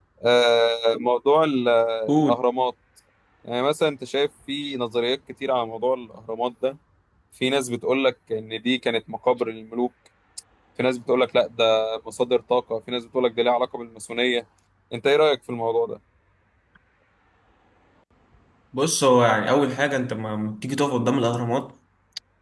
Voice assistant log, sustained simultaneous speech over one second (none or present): none